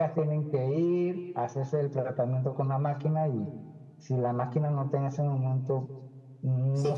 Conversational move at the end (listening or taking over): taking over